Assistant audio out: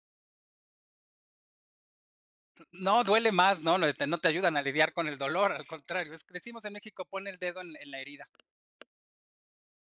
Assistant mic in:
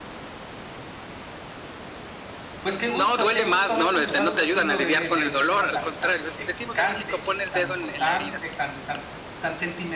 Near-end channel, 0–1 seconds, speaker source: neither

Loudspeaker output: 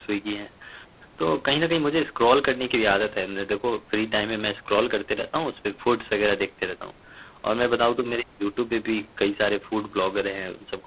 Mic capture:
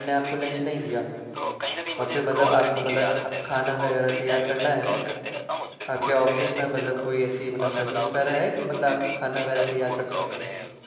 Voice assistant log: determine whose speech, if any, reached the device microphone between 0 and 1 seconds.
both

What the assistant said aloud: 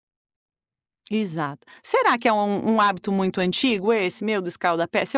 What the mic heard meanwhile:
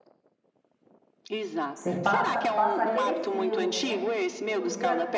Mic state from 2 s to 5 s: both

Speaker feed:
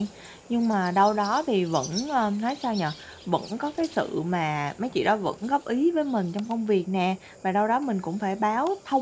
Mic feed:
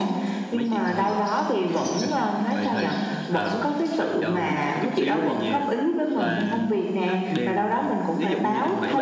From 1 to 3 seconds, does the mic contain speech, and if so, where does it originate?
both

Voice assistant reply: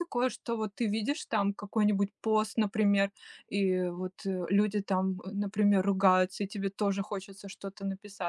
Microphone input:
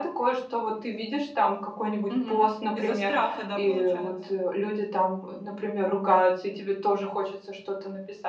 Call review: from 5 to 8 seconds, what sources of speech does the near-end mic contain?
echo only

